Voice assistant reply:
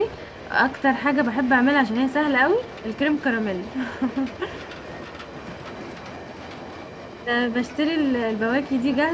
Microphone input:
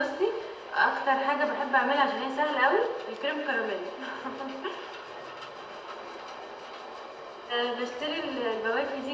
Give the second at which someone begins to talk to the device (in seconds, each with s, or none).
none